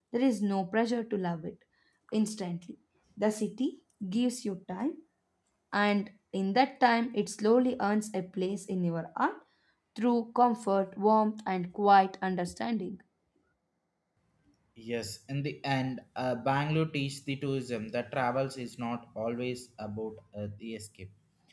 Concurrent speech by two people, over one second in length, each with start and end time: none

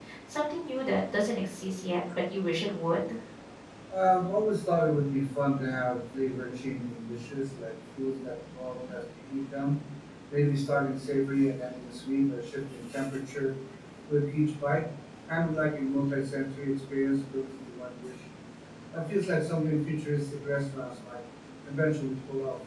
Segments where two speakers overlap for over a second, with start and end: none

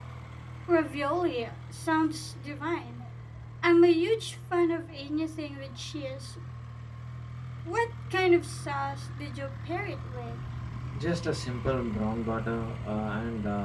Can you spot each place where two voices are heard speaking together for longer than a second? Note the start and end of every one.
none

